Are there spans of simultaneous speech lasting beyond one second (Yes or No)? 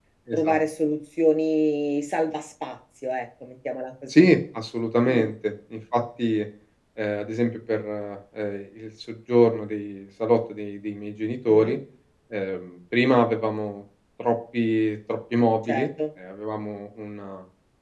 No